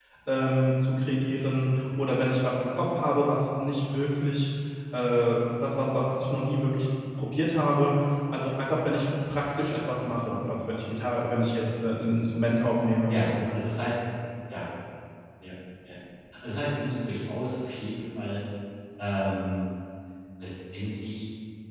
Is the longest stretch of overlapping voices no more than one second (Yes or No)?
Yes